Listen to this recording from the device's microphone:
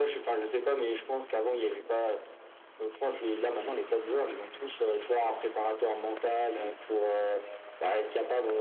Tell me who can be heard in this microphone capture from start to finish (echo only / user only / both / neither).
echo only